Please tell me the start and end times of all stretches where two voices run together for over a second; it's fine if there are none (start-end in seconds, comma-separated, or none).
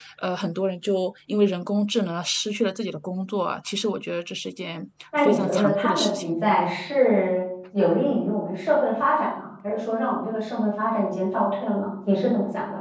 5.2-6.4